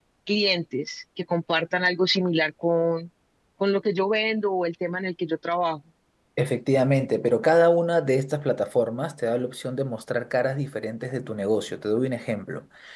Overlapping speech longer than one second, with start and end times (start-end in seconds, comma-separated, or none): none